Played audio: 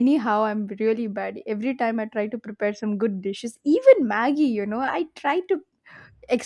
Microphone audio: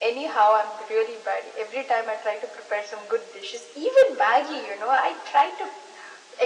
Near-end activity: none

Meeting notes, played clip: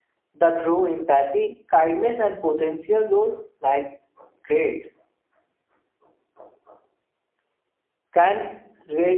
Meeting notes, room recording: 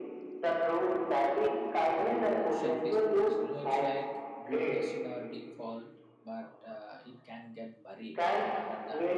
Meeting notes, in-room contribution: present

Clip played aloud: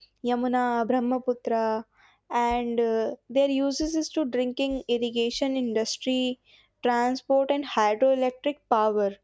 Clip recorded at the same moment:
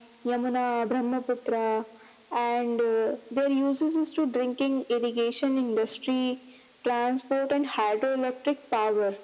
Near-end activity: none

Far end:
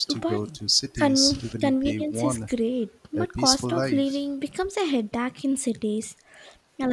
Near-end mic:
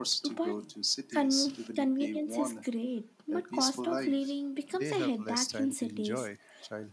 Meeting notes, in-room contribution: present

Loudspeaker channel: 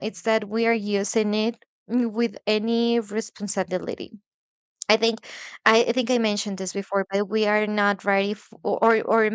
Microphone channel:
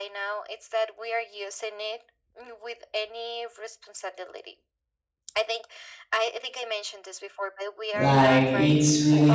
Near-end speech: present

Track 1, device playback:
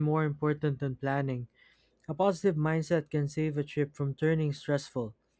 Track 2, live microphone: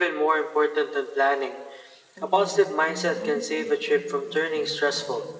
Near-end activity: present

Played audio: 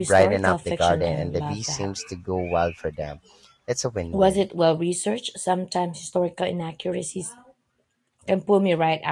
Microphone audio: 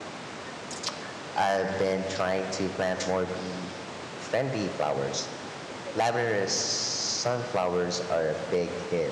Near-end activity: present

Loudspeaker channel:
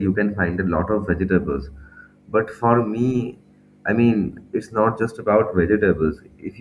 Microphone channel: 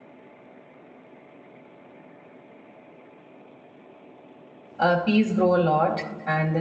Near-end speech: present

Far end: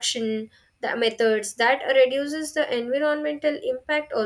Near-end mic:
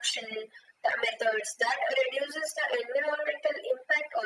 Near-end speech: none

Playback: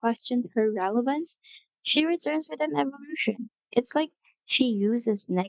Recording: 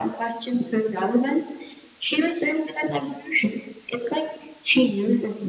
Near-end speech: none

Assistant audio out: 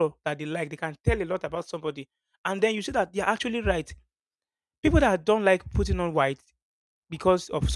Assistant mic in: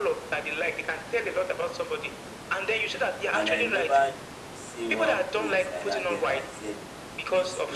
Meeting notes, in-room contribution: present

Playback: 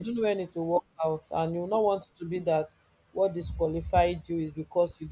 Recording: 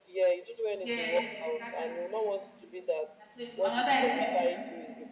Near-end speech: present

